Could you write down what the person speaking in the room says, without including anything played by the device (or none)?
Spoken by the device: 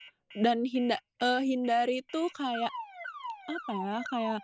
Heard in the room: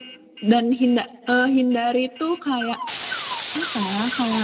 none